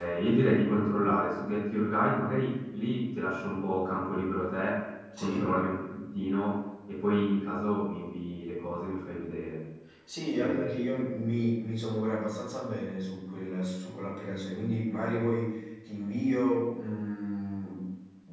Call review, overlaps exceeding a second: none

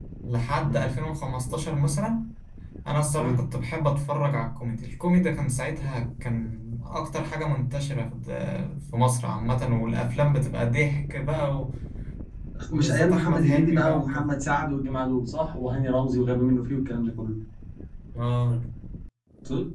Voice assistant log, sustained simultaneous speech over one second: present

